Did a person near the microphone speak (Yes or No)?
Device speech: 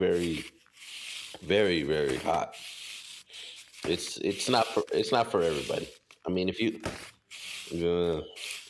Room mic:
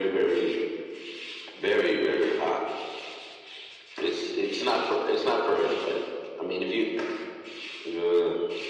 No